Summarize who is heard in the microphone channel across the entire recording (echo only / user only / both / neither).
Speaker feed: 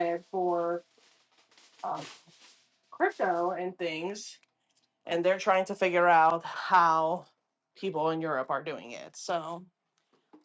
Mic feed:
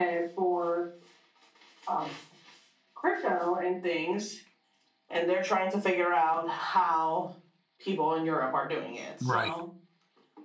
both